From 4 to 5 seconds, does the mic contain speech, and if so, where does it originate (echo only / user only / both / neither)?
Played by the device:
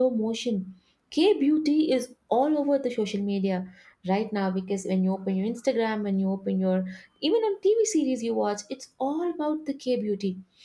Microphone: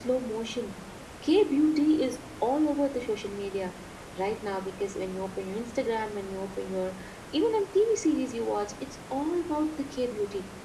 echo only